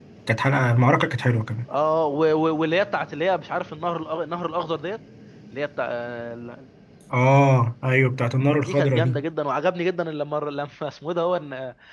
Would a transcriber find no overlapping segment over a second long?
Yes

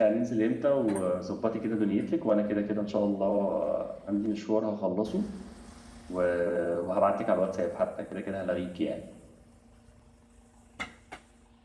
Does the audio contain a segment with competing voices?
No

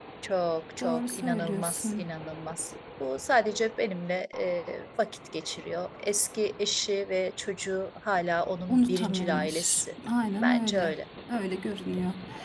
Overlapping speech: Yes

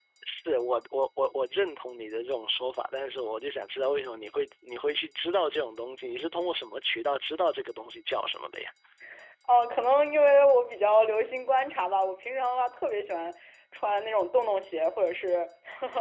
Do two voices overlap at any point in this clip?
No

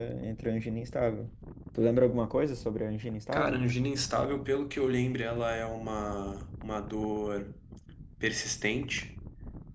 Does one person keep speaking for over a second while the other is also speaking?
No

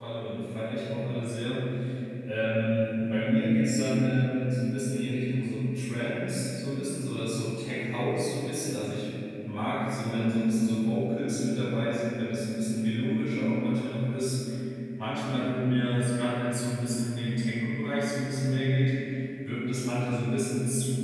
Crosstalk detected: No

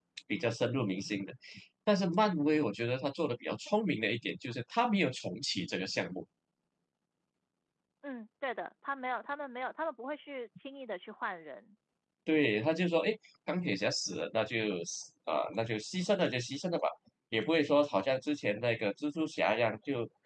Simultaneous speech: No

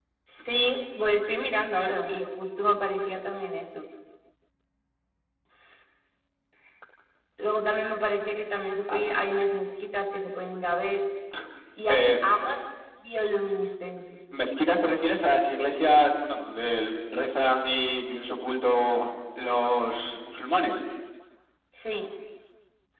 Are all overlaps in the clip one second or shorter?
Yes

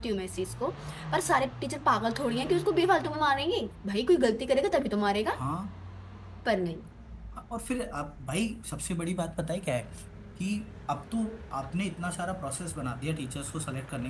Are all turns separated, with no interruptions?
Yes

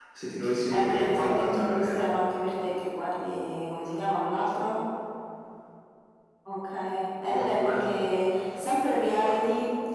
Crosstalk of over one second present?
Yes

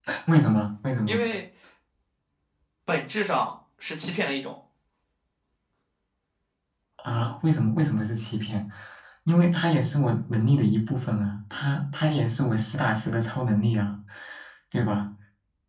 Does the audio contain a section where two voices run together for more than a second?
No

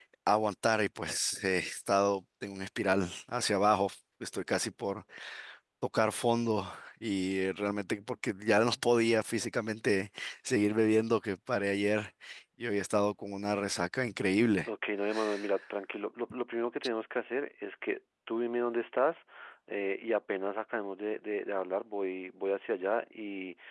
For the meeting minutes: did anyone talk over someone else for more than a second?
No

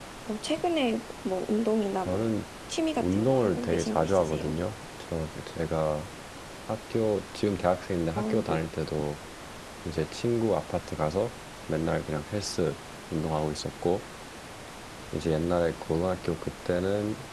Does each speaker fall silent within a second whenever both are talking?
No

